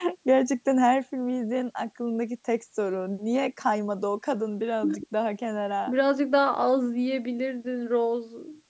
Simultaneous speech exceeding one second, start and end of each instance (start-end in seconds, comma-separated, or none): none